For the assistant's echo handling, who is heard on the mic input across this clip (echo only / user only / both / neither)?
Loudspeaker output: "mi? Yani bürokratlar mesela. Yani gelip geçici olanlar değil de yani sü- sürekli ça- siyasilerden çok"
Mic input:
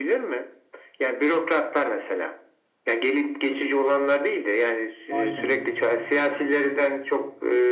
both